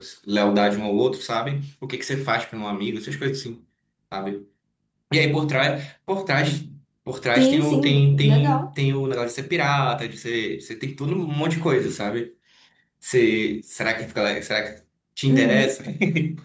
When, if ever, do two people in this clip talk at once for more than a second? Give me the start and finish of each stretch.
7.3-8.7

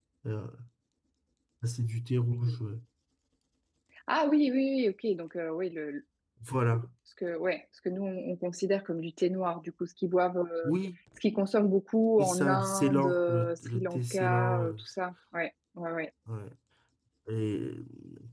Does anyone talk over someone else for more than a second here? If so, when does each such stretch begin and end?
12.2-14.7

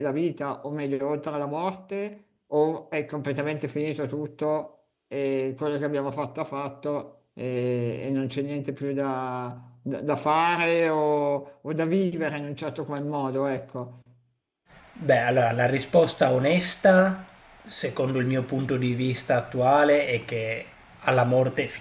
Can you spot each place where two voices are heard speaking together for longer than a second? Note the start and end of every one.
none

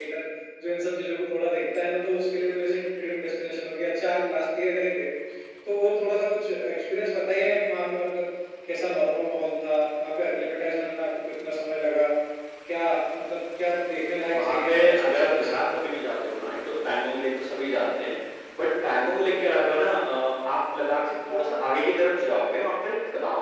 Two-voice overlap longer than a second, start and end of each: 14.3-15.6

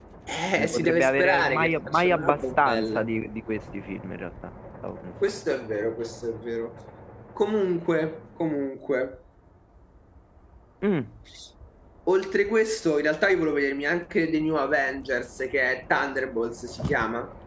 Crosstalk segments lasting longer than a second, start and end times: 0.6-3.0

